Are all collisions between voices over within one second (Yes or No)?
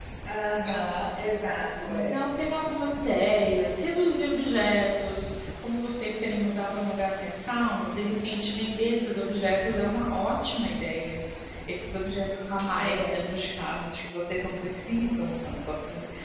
Yes